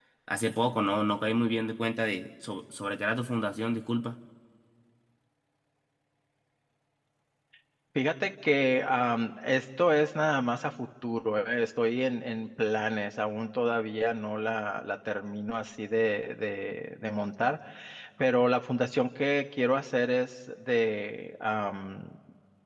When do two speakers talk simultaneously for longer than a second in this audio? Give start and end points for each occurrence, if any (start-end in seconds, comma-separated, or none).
none